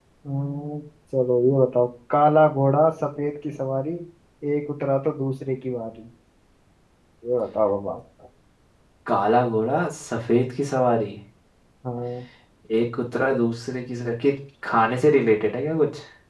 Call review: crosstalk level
none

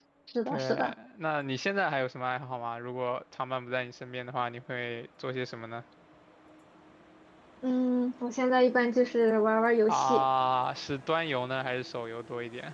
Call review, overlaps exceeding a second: none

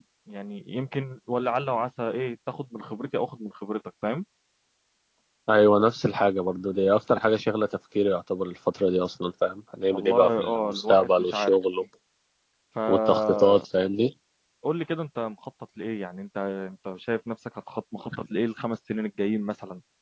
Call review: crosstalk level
present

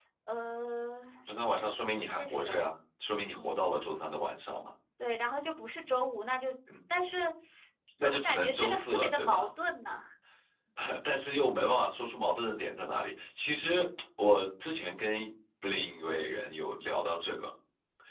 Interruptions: present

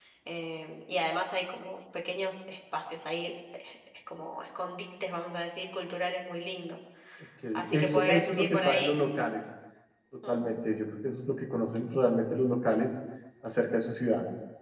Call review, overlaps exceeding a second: present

